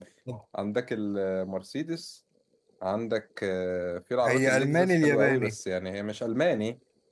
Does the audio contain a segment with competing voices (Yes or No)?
Yes